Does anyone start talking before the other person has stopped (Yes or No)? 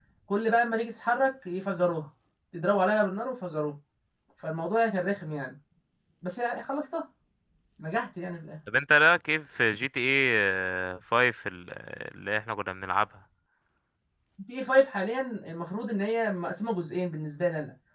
No